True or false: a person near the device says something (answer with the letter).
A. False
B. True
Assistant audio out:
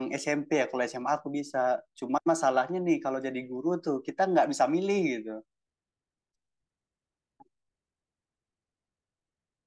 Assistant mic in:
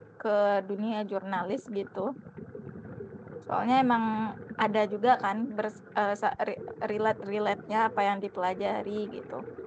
B